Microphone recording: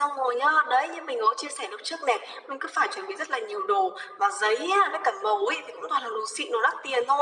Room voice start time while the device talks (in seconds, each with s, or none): none